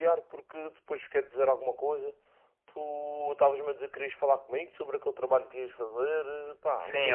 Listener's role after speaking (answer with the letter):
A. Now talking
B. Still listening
A